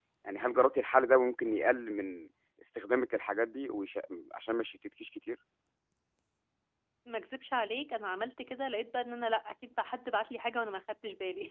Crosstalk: none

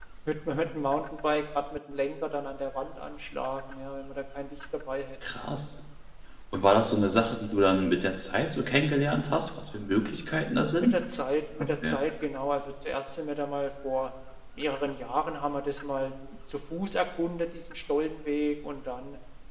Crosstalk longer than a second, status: none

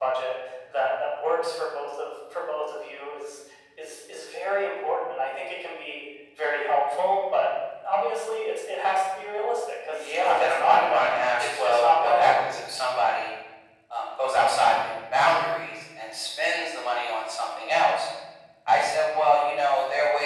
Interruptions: present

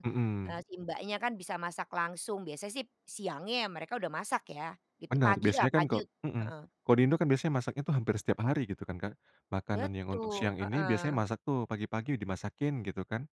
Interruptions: present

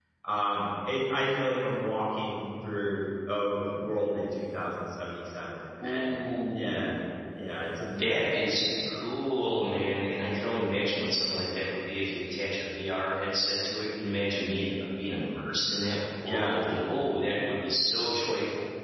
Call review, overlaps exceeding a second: none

